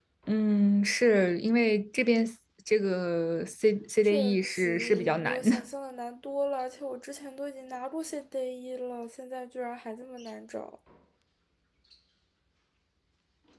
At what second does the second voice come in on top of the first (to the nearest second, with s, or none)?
4 s